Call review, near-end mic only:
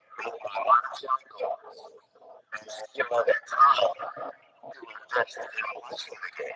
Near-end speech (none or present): none